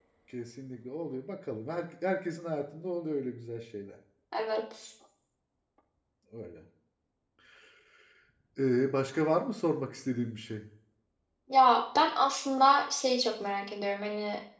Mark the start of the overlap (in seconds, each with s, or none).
none